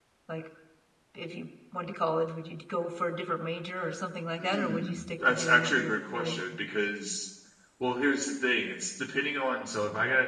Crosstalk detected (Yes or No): Yes